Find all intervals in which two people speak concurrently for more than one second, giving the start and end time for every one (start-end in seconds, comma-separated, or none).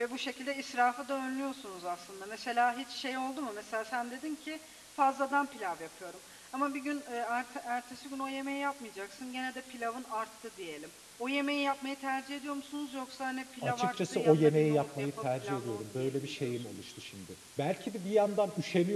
13.6-16.9